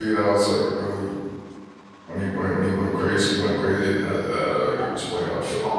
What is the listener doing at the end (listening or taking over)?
taking over